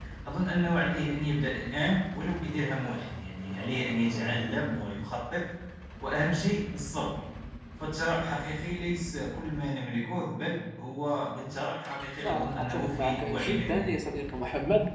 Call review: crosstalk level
present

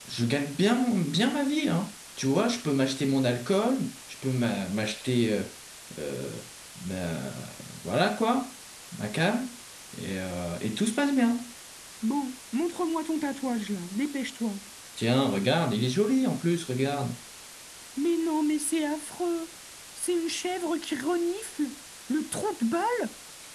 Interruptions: none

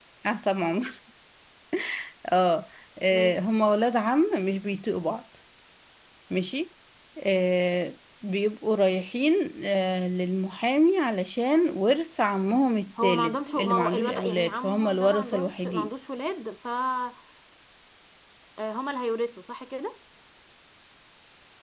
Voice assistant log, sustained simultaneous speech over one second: present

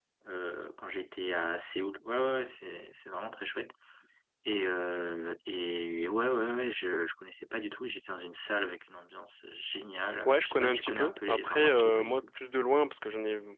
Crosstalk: present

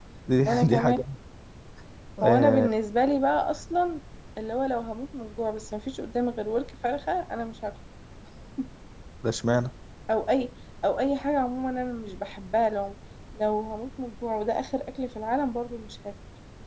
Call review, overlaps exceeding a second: none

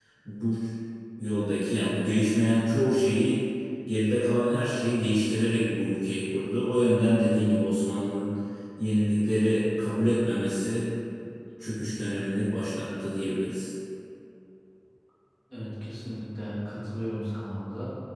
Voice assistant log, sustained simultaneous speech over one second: none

